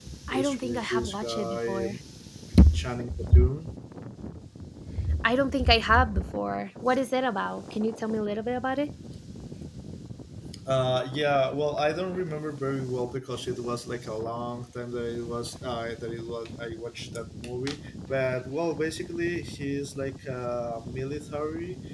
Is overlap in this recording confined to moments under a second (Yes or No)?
No